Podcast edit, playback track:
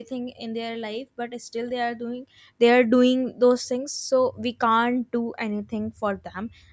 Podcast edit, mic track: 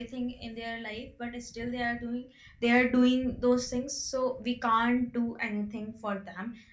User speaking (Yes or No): No